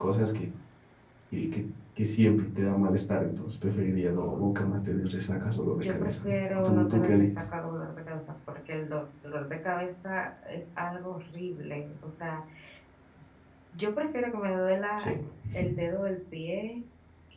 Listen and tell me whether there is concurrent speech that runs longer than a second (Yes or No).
Yes